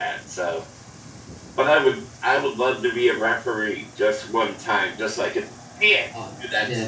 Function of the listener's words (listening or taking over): taking over